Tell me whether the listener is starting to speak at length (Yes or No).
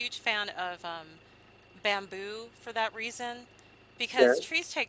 No